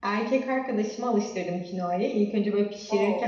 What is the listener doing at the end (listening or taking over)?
listening